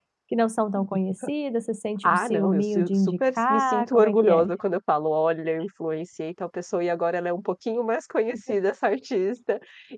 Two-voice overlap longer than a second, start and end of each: 2.0-4.5

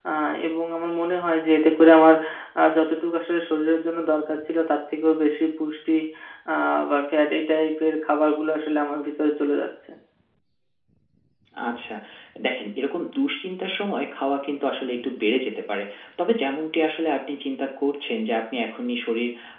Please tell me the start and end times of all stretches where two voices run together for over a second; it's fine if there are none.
none

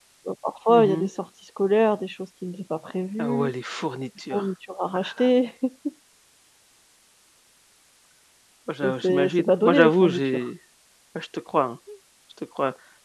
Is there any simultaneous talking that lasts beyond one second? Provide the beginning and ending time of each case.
8.8-10.5

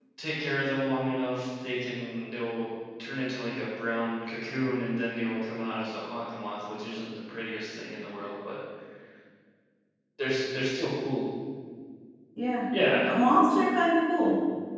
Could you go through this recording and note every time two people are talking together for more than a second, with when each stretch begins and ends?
none

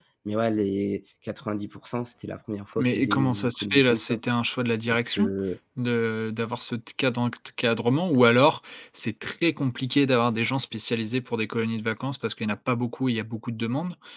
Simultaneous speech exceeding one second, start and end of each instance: 2.8-4.2

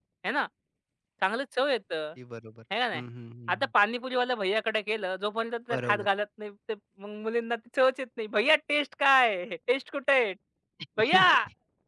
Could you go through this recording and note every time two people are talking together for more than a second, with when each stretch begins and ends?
none

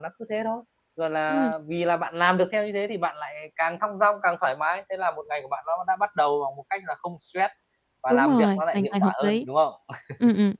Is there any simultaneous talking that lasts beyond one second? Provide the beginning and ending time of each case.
8.1-9.4

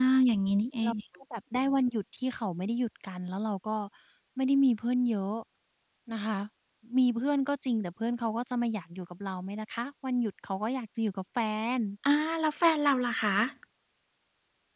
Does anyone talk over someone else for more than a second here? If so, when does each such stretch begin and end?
none

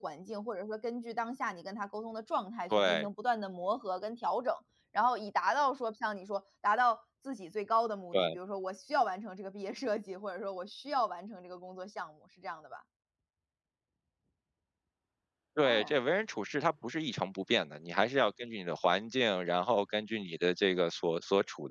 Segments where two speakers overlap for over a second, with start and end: none

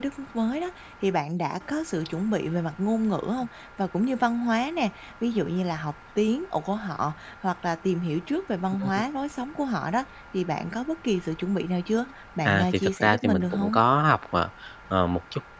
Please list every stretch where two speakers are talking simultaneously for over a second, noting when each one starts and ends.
12.4-13.8

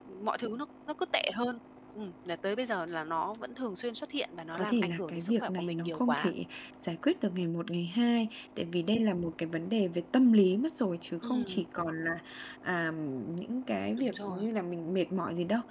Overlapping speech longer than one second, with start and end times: 4.5-6.3

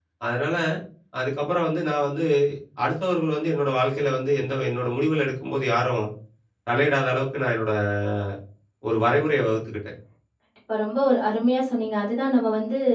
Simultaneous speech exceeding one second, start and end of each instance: none

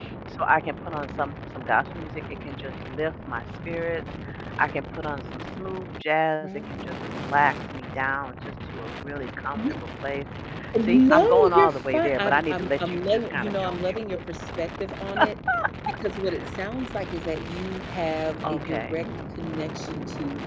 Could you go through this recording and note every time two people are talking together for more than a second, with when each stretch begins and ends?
10.9-14.0

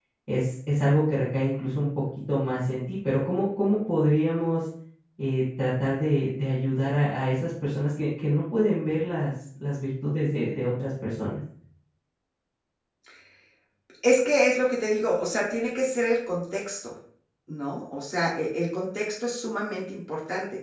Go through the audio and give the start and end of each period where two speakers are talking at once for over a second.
none

